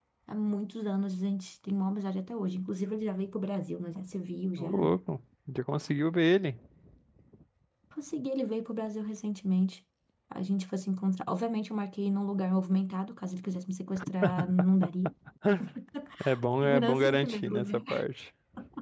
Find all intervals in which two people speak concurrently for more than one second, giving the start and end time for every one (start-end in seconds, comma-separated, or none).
16.6-17.8